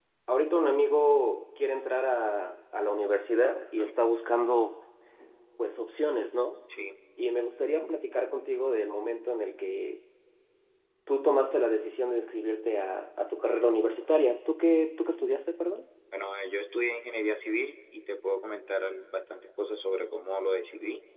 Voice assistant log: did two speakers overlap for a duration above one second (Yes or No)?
No